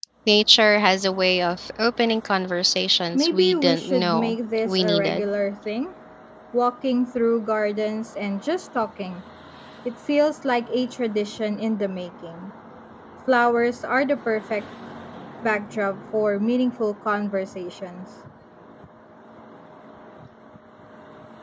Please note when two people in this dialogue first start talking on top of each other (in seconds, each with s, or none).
3.1 s